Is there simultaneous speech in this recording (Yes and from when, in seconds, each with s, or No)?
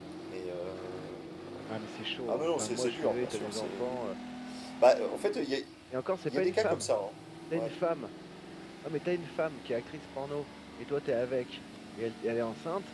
Yes, from 2.3 s